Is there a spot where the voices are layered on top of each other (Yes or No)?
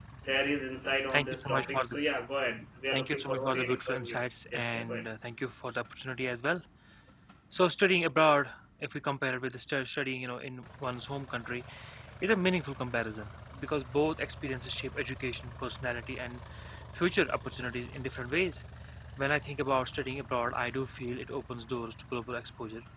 Yes